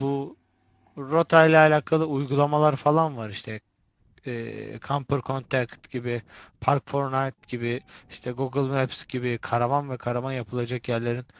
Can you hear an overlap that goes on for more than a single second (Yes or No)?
No